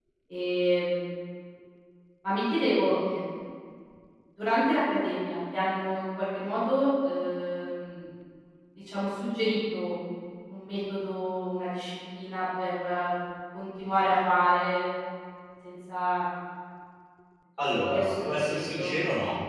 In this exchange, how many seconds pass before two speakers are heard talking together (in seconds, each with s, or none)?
17.7 s